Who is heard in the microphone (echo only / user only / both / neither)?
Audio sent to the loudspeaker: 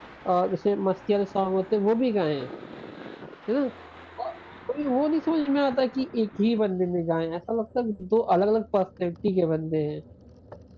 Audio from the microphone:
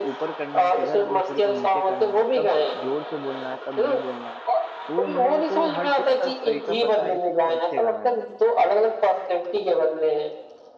both